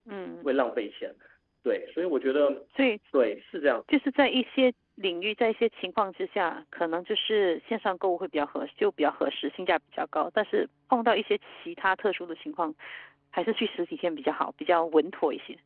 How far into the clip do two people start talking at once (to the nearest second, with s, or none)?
none